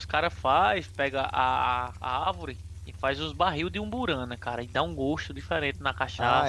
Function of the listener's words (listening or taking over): taking over